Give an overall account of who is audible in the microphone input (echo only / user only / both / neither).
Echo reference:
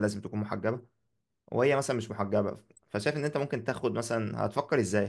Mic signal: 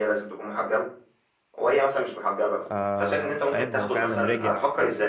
both